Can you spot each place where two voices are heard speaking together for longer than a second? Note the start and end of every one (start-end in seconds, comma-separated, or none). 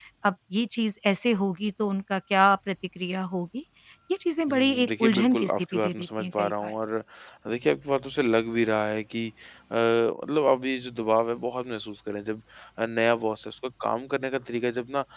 4.5-6.7